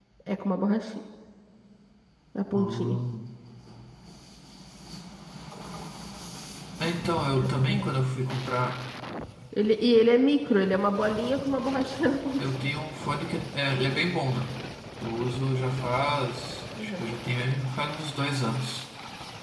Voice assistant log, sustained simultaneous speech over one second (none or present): none